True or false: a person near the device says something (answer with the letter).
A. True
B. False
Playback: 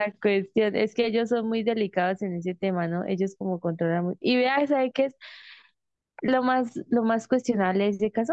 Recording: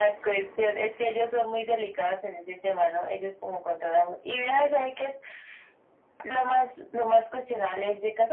B